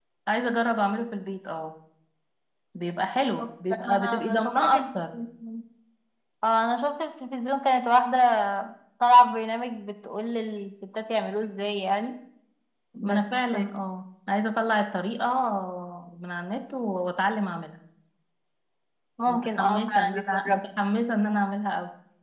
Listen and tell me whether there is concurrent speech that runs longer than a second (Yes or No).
Yes